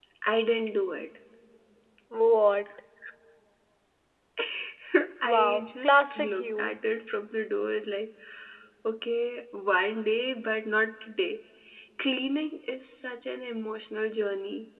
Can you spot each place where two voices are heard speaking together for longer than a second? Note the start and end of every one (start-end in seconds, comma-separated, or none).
5.3-6.7